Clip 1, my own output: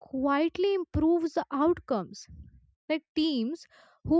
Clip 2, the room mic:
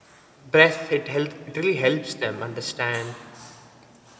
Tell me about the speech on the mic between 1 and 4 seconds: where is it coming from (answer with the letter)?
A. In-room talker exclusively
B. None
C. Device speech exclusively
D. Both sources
A